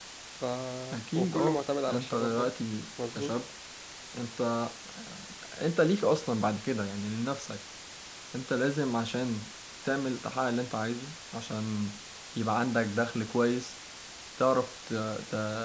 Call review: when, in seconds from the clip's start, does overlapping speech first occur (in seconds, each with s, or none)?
1.1 s